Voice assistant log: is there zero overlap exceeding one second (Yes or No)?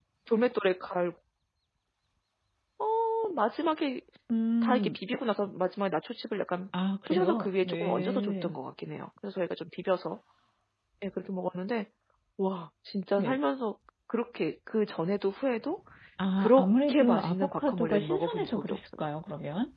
No